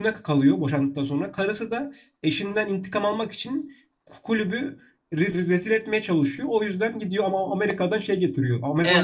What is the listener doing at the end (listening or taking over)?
listening